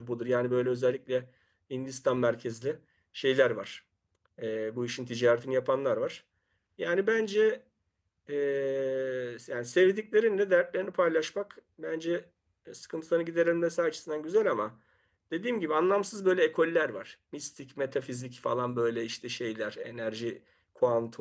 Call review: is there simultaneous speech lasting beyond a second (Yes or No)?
No